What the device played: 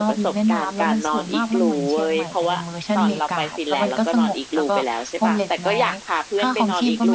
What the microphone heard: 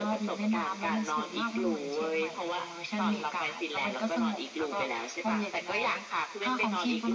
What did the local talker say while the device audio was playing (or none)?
none